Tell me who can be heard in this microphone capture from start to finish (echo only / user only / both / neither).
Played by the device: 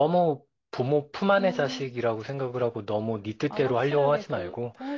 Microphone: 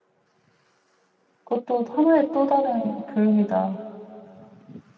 user only